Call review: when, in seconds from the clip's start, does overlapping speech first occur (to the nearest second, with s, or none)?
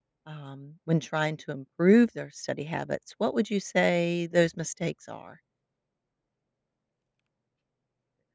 none